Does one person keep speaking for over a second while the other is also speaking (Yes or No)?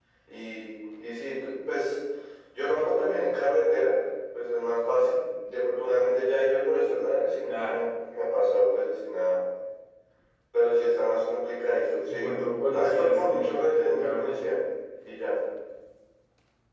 Yes